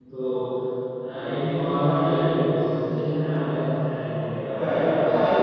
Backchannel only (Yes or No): No